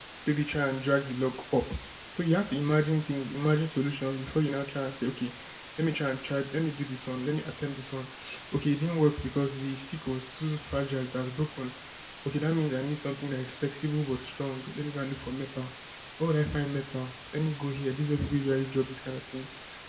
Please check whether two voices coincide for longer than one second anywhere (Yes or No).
No